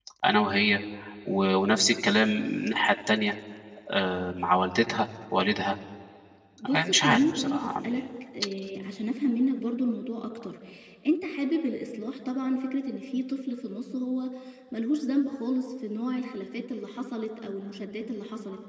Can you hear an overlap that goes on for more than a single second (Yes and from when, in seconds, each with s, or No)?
Yes, from 6.7 s